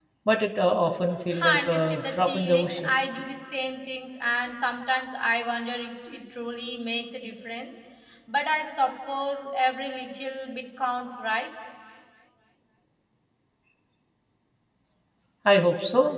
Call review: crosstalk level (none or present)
present